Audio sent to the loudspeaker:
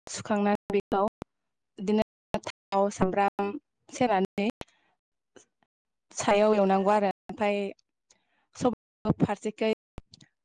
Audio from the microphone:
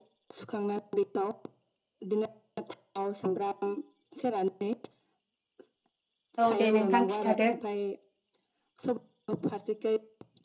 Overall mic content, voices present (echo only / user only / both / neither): both